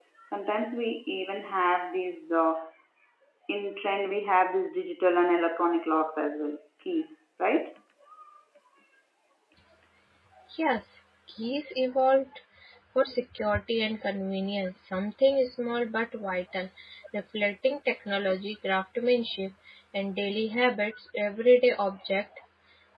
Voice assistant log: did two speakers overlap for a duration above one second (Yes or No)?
No